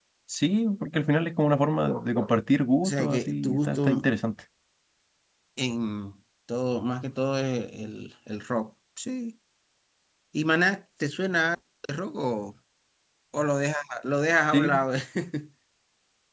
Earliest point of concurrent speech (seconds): 2.8 s

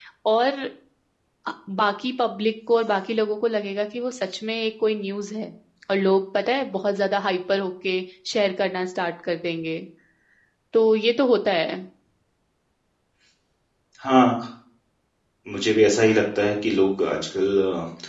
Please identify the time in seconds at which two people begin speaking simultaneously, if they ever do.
none

